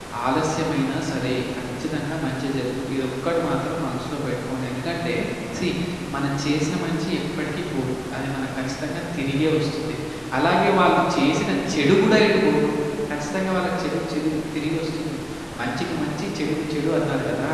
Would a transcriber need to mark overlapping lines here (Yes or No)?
No